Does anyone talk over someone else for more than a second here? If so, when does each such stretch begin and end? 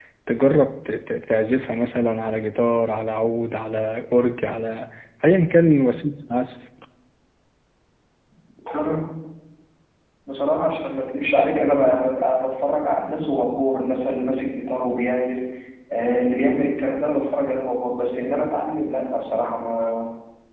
none

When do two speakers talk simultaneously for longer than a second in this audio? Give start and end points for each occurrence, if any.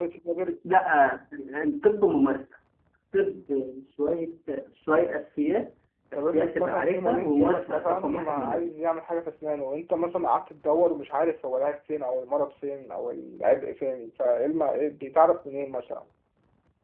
6.2-8.7

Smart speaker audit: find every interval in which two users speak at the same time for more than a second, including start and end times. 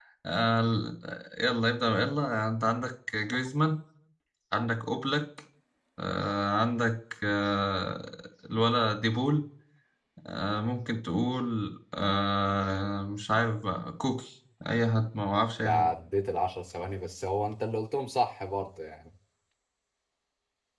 none

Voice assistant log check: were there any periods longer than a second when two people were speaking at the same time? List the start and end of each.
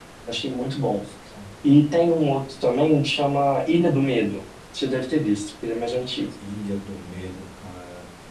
none

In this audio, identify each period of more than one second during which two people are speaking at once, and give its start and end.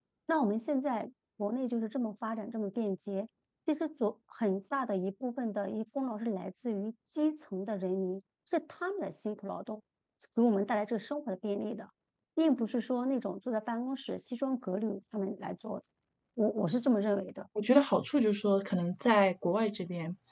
none

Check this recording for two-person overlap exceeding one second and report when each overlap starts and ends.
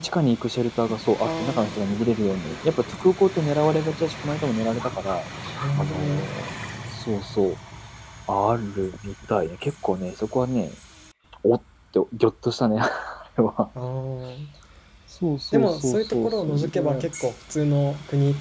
15.5-17.1

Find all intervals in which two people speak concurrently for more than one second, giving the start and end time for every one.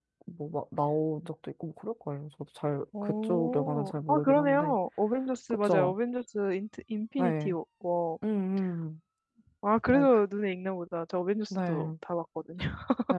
3.0-4.8

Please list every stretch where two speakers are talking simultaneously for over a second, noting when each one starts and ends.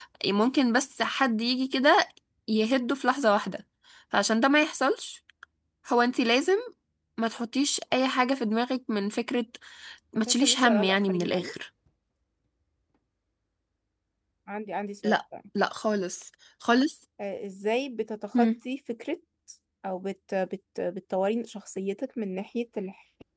10.3-11.5

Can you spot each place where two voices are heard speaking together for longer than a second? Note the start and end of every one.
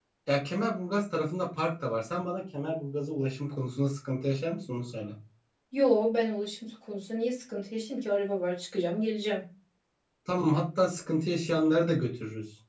none

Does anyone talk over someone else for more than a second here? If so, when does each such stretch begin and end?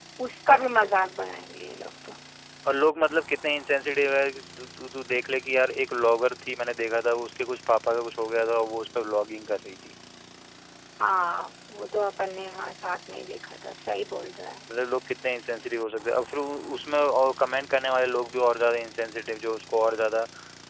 none

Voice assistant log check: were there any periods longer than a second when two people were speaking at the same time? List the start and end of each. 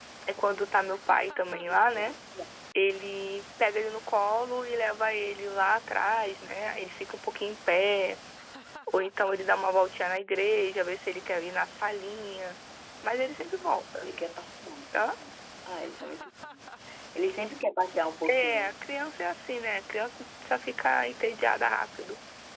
none

